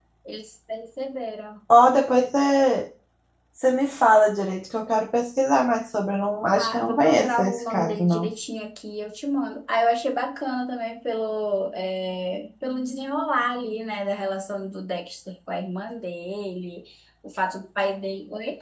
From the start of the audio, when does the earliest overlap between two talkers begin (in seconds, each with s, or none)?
6.6 s